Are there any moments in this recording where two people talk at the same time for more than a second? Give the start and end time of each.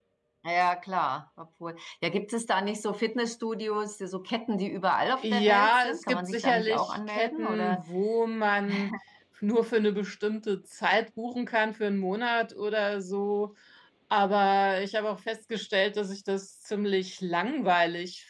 5.2-7.8

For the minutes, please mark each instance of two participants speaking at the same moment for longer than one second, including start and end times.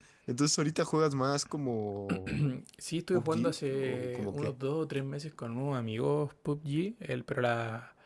3.1-4.5

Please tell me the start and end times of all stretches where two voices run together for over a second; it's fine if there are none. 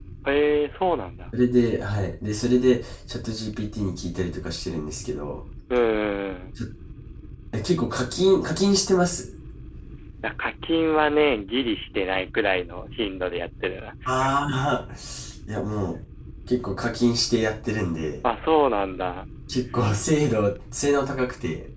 none

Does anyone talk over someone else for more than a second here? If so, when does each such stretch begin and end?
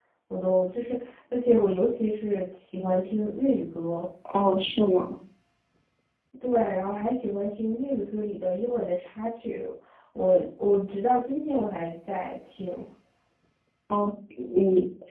none

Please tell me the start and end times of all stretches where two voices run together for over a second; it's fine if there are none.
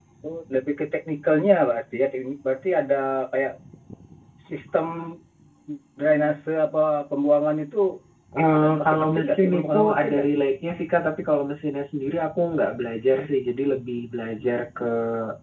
8.6-10.3

